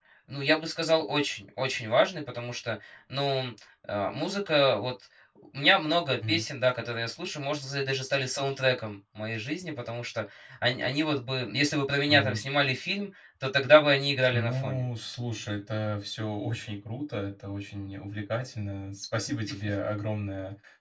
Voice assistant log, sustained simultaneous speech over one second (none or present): none